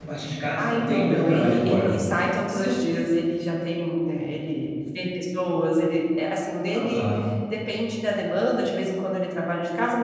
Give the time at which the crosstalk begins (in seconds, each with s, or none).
0.6 s